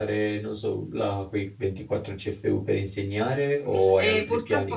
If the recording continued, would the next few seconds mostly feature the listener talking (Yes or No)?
Yes